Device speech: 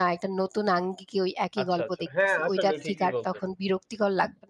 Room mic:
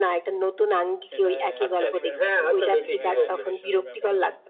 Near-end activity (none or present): present